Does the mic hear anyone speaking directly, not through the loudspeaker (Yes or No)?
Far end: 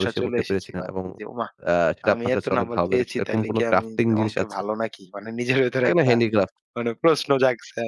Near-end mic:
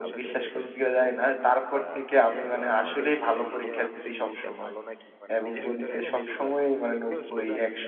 Yes